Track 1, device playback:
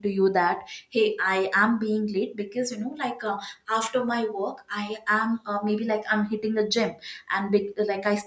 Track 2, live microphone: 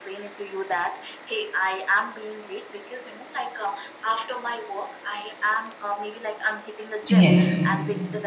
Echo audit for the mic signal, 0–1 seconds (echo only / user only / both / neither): echo only